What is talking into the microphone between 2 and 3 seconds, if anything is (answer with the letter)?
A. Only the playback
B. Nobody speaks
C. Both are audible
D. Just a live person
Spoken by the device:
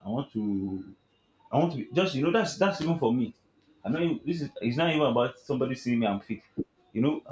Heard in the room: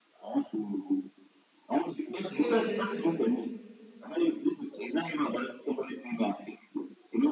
C